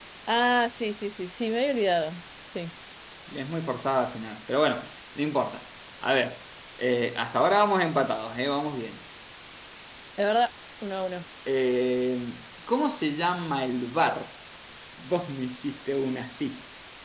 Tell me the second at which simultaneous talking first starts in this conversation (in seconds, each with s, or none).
none